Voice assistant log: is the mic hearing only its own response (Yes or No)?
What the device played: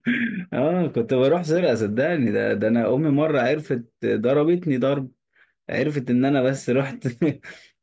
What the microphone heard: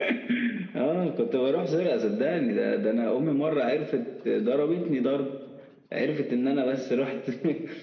Yes